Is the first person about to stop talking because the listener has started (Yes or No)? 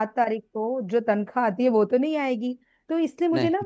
No